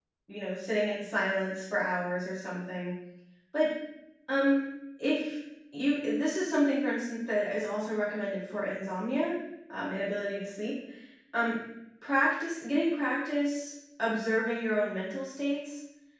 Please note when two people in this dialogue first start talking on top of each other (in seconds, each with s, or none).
none